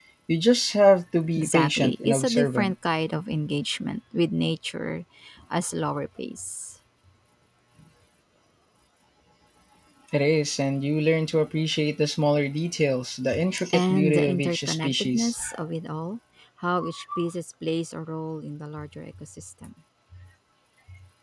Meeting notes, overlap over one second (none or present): present